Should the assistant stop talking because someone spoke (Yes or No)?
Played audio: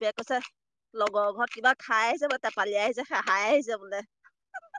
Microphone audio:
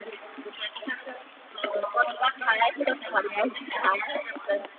No